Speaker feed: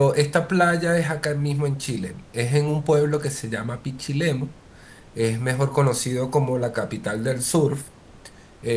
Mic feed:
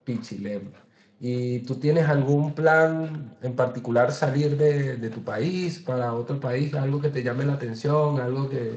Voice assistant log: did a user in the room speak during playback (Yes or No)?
Yes